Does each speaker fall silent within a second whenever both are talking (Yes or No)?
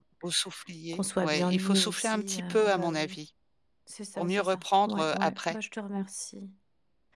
No